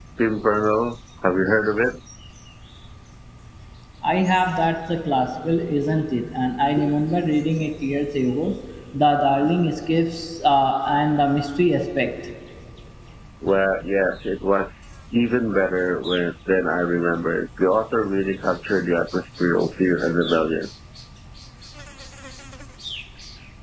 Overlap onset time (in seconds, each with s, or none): none